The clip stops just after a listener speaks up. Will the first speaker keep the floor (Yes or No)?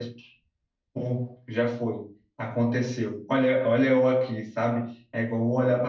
Yes